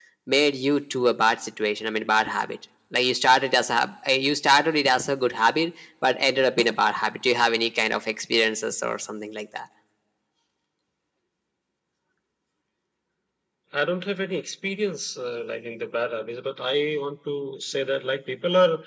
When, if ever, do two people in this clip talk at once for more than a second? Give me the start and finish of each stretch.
none

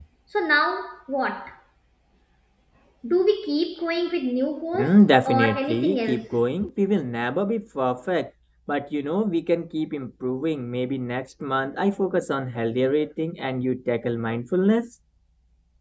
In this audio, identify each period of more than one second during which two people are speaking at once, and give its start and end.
4.7-6.2

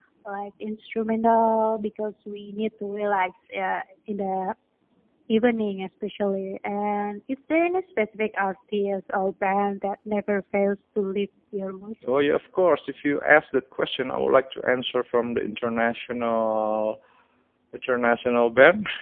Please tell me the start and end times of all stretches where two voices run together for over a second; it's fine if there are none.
none

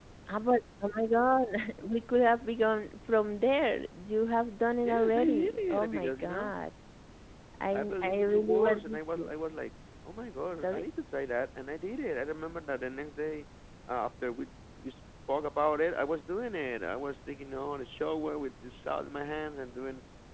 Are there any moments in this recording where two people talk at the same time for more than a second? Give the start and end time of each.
4.8-6.5, 7.7-9.3

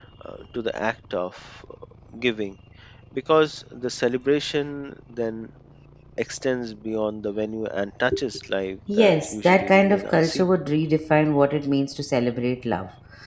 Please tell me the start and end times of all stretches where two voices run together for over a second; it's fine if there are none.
9.0-10.5

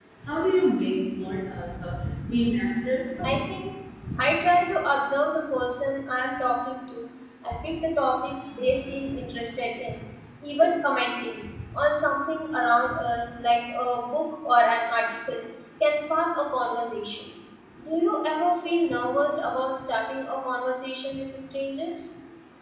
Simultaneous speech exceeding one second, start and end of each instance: none

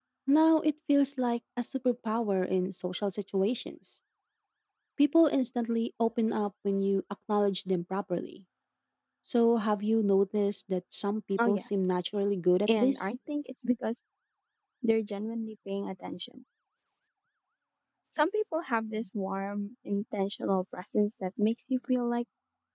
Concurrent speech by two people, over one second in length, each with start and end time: none

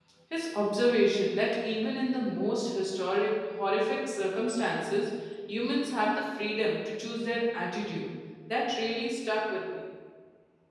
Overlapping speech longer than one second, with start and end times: none

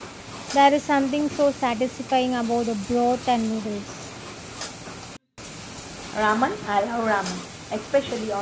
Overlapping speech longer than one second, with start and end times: none

